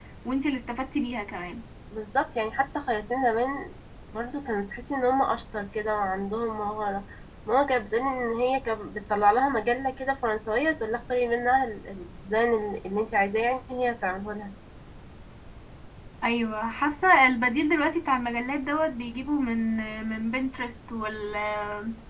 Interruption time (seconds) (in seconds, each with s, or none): none